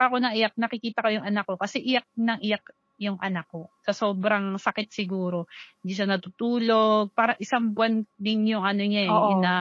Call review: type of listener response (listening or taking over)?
listening